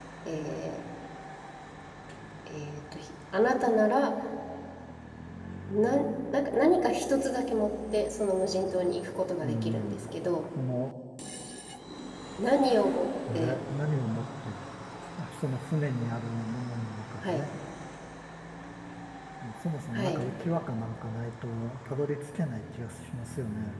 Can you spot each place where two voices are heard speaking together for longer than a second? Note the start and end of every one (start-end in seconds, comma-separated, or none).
none